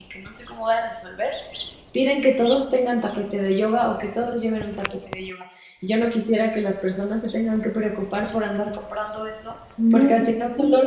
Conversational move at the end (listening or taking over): listening